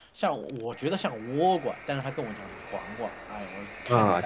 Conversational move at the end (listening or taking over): taking over